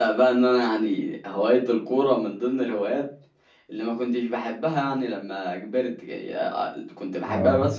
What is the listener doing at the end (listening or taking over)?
listening